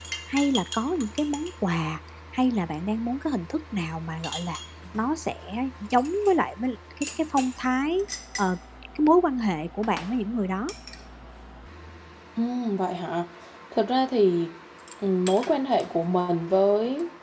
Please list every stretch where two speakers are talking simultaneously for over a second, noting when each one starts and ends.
none

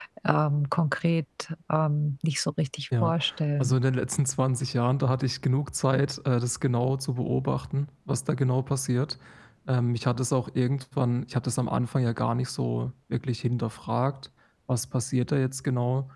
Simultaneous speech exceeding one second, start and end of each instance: none

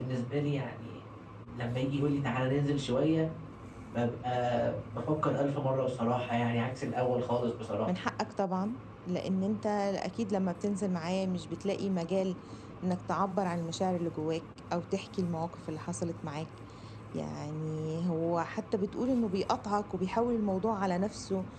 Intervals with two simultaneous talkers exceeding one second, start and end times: none

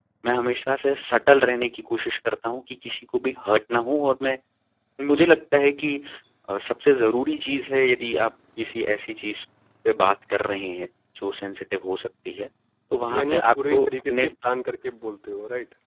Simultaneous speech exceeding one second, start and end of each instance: 13.1-14.3

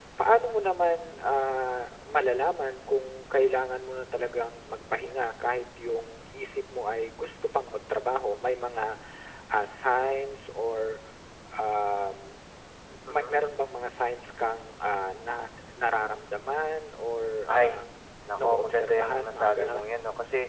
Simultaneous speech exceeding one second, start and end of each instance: 18.4-19.8

